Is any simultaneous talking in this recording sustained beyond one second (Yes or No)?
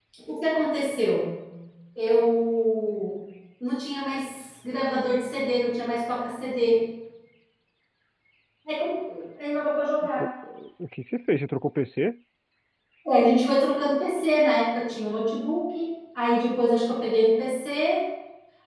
No